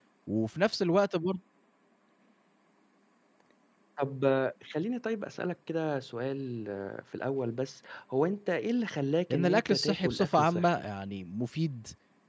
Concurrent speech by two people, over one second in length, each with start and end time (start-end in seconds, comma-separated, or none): 9.3-10.7